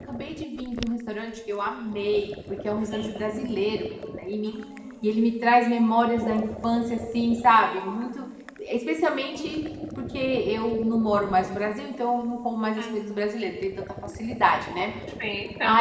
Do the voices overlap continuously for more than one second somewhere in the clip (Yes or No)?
No